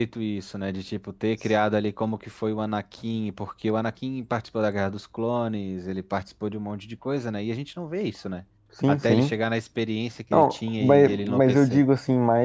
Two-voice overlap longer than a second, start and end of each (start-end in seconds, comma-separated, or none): 10.3-11.8